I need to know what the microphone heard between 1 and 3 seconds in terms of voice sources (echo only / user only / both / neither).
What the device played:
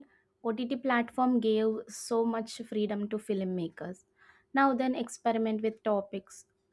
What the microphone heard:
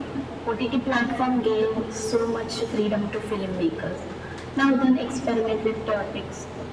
echo only